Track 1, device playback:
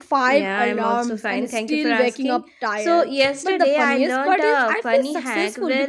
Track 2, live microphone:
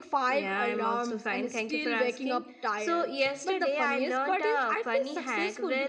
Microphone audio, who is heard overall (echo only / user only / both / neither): echo only